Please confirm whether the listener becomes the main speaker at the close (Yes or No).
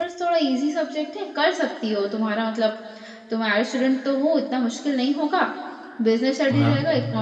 No